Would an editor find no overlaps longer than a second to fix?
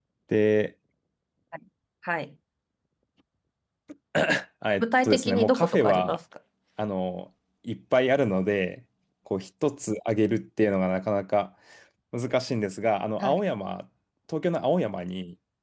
No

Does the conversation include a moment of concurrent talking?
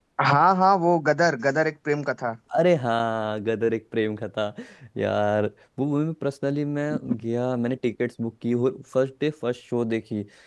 No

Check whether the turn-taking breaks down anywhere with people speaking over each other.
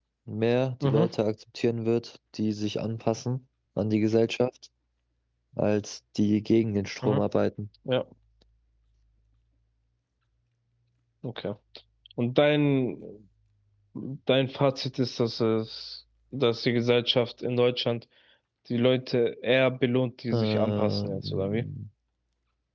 Yes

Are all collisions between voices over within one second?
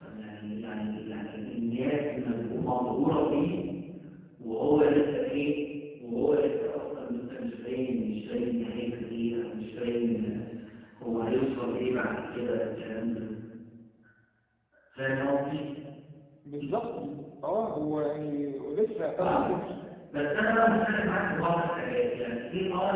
Yes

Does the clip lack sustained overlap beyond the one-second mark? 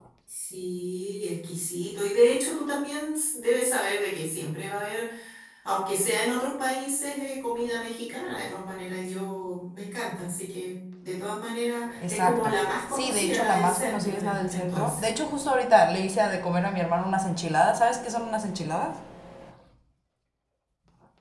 No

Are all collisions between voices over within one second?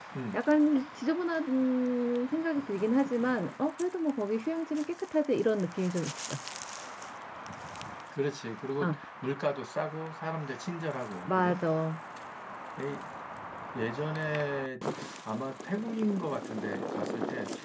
Yes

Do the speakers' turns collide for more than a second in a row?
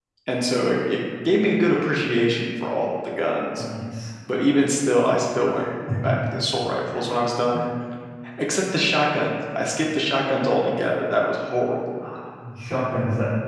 No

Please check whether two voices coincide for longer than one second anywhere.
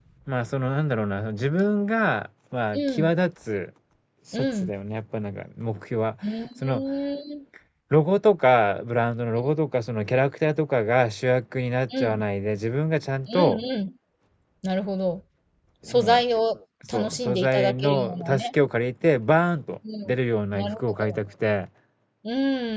Yes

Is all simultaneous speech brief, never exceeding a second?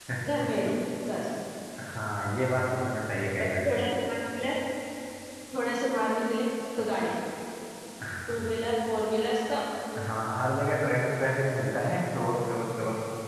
Yes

